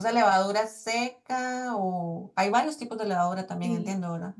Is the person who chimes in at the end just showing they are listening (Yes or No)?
No